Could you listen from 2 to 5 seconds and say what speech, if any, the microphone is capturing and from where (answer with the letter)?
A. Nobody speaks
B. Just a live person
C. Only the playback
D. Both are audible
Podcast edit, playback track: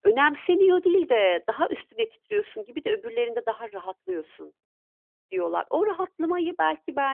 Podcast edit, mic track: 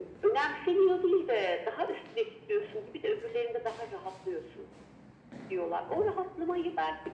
C